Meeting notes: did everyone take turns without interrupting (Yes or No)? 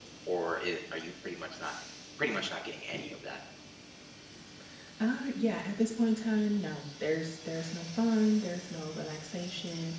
Yes